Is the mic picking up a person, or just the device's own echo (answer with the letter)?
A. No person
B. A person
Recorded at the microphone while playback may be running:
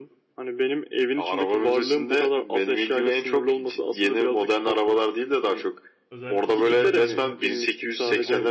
B